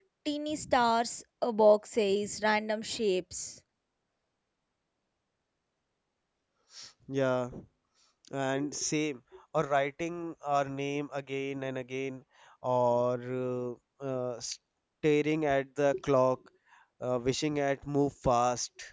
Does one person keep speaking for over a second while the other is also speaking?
No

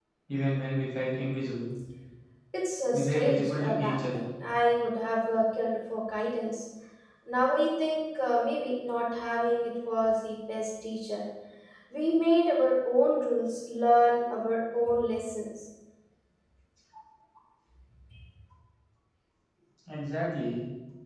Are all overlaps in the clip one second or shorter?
No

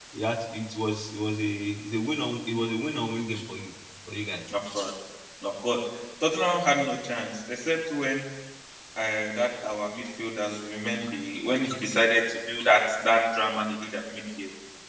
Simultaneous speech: No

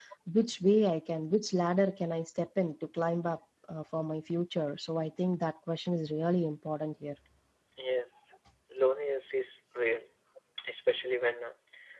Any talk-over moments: No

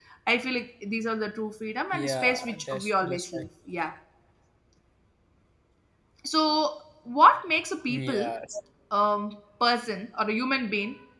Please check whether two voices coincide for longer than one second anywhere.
Yes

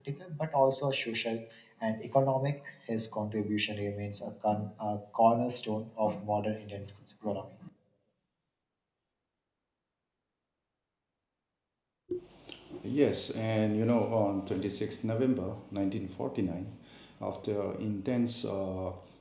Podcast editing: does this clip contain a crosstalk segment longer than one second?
No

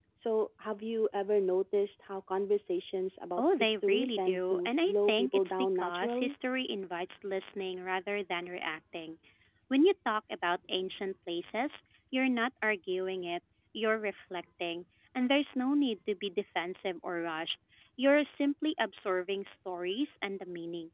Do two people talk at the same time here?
Yes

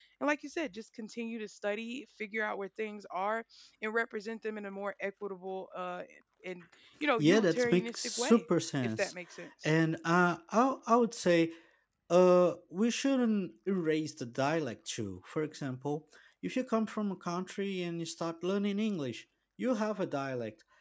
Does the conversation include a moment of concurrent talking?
Yes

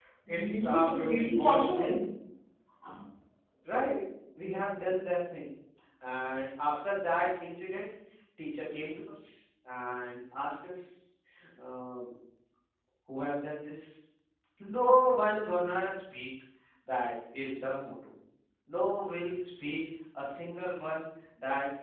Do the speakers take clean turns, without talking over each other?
No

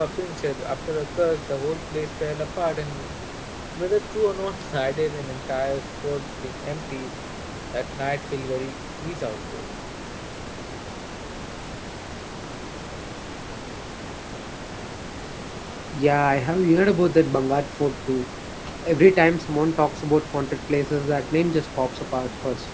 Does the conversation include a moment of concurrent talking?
No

